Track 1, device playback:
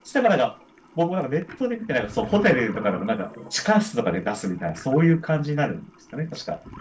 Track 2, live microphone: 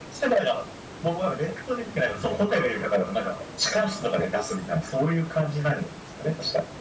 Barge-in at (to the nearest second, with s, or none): none